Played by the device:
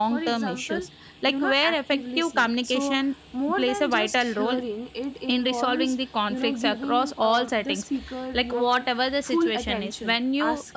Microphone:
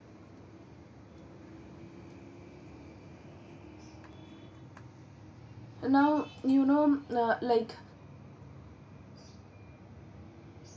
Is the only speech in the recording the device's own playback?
No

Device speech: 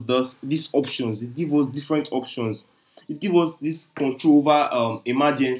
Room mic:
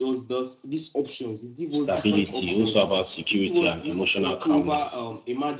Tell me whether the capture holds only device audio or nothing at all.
No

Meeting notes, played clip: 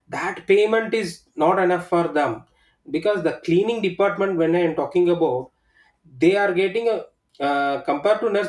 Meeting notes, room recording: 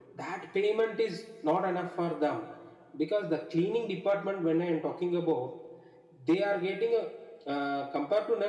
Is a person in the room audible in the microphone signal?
No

